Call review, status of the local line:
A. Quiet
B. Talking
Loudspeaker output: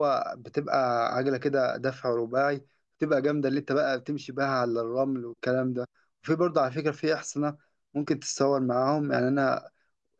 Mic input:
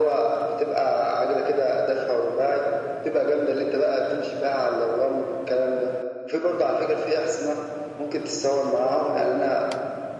A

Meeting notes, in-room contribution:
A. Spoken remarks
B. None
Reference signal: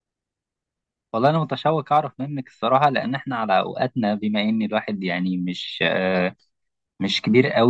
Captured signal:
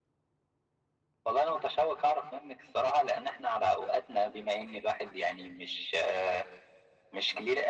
B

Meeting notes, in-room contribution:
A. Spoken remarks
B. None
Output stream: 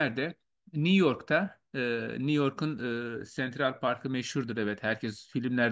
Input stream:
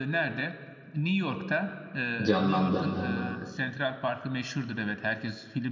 A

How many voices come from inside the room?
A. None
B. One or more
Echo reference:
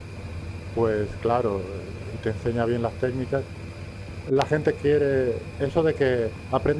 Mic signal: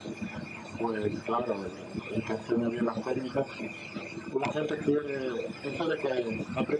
A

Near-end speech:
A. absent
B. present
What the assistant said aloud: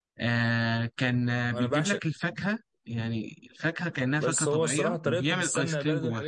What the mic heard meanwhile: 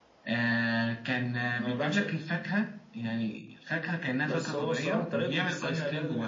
A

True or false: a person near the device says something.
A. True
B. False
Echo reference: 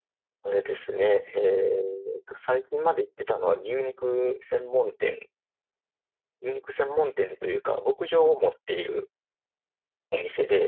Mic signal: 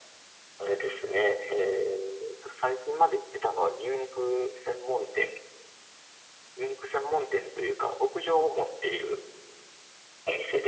B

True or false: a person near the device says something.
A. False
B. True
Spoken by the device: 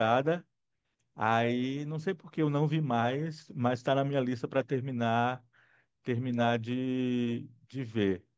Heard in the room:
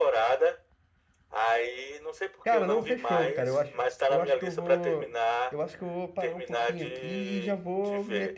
B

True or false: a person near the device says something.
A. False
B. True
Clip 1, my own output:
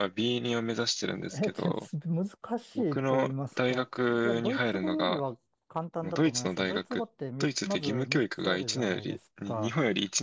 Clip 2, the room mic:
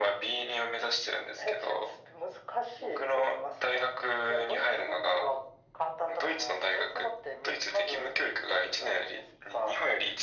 A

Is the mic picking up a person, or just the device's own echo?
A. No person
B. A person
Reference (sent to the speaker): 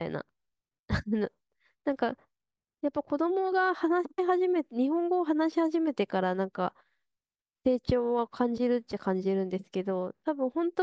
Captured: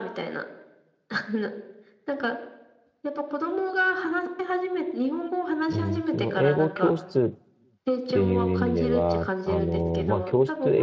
B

